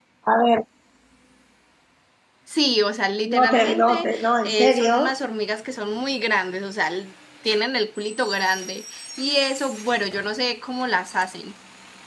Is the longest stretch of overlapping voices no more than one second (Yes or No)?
No